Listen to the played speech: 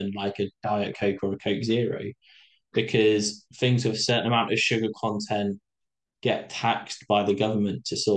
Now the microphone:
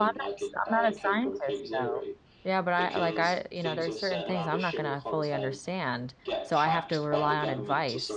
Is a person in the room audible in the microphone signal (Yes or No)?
Yes